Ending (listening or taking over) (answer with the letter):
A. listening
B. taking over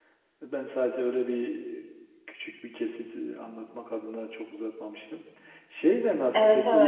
A